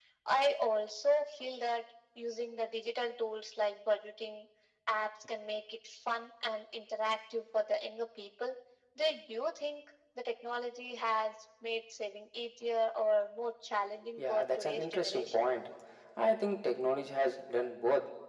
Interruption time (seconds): 14.2 s

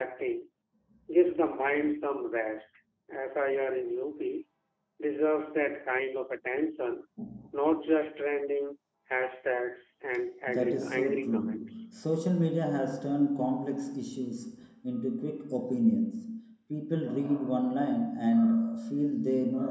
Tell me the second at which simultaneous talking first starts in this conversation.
10.5 s

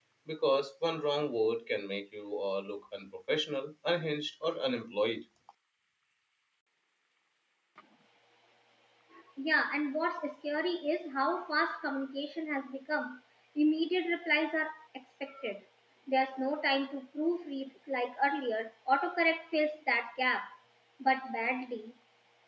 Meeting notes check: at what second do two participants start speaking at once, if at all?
none

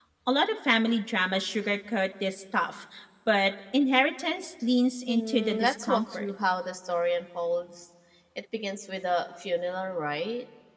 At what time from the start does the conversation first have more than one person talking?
5.1 s

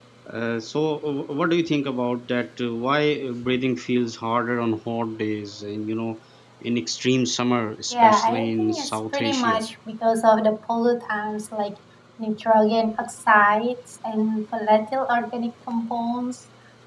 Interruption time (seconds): 7.9 s

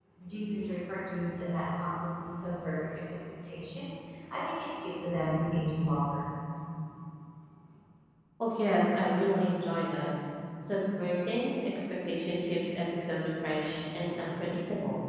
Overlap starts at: none

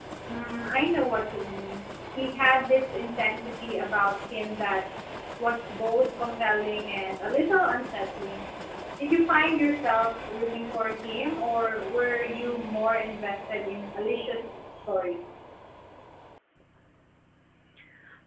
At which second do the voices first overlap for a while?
none

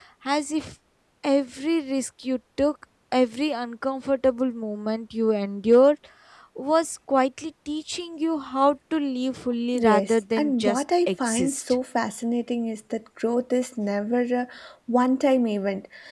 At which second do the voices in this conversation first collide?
9.7 s

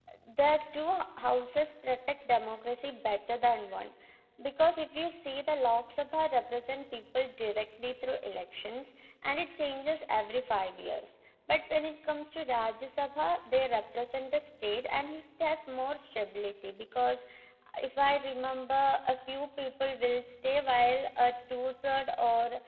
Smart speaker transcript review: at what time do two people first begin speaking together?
none

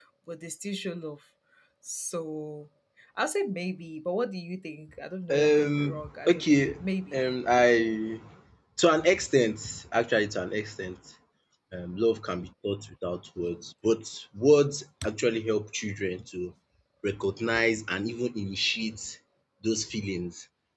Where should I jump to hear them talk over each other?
5.3 s

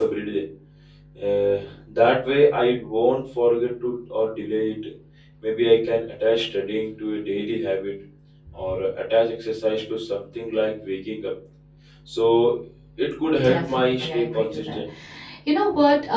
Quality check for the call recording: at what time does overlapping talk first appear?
13.4 s

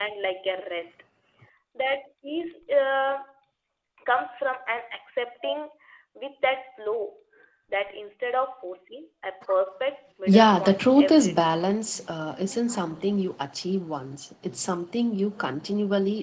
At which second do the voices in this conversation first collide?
10.3 s

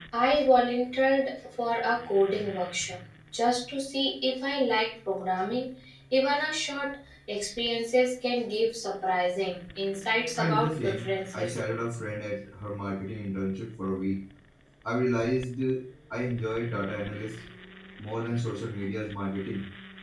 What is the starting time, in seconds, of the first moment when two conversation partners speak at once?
10.4 s

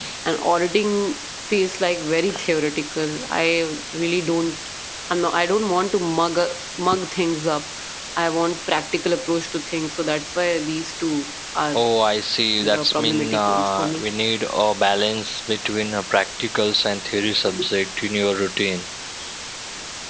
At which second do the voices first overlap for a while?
12.6 s

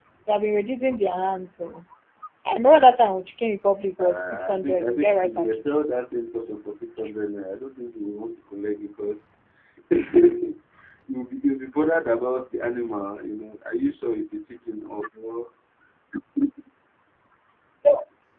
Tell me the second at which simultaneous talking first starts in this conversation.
4.0 s

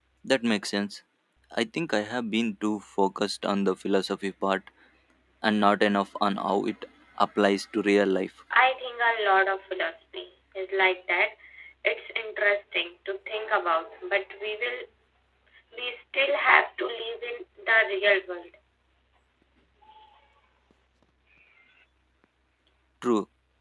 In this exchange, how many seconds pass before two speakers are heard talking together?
none

